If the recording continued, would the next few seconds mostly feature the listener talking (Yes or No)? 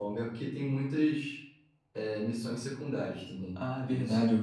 Yes